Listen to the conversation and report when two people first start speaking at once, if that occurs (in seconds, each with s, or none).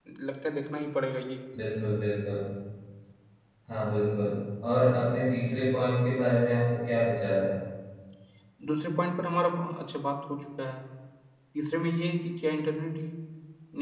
none